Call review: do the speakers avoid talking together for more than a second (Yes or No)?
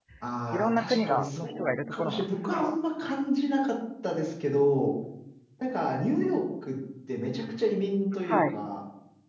No